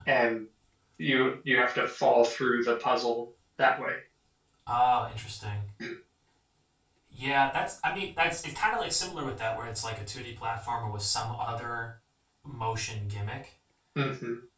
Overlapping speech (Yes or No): No